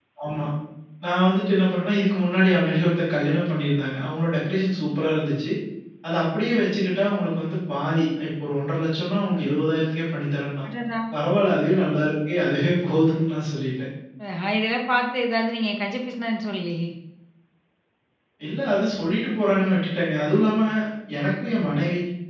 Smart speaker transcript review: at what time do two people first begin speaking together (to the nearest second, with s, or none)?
none